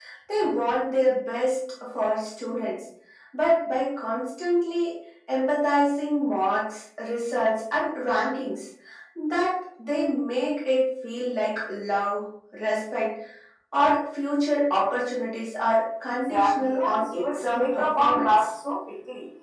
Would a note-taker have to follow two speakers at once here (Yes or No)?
Yes